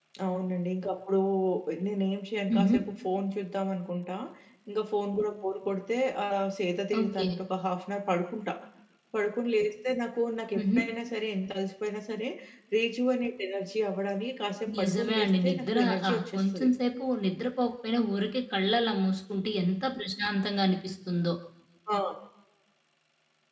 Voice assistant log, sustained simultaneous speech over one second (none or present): present